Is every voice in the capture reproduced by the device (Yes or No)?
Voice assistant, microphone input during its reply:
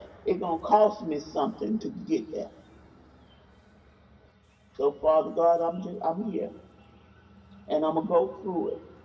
Yes